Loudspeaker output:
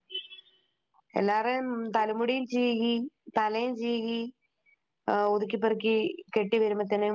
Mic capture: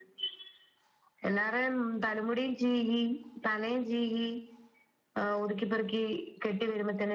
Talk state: echo only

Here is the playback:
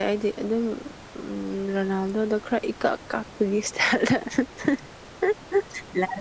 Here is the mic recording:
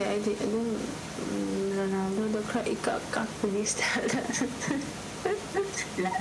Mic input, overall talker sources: echo only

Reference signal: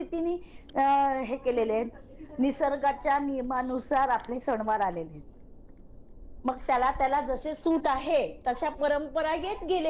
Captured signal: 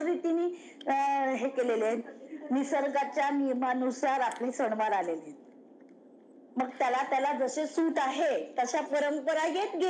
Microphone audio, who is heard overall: echo only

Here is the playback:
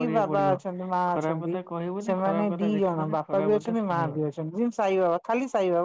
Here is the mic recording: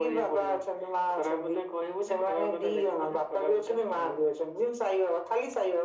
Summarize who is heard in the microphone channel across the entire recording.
echo only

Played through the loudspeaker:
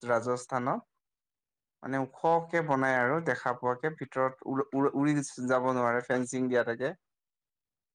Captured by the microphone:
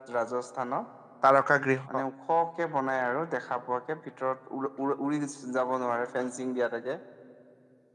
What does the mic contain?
both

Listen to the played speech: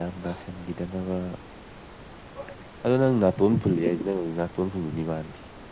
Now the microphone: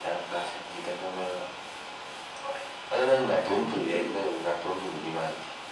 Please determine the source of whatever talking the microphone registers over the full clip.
echo only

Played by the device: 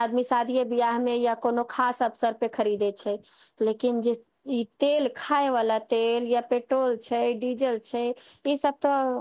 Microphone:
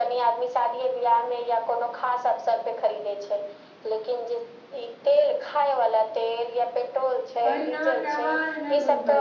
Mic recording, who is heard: both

